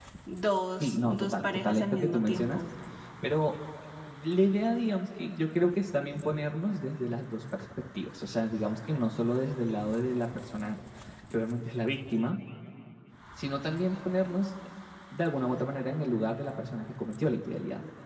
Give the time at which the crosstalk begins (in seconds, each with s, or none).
0.8 s